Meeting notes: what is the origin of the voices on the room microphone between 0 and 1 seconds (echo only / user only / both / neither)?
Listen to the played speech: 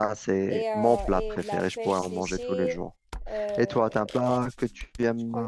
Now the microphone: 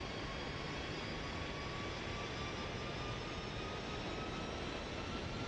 neither